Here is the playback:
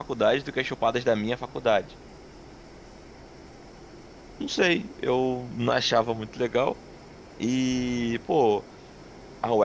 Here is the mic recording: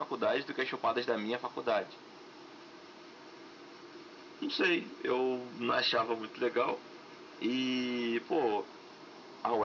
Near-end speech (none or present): none